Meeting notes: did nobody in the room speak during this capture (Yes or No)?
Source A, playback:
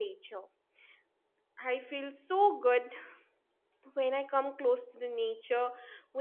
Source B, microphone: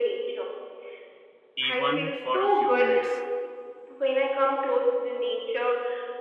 No